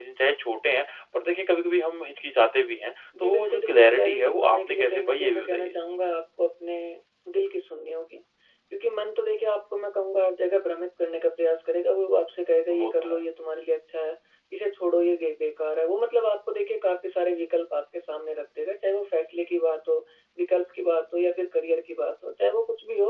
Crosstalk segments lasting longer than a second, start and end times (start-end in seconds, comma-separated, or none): 3.2-5.7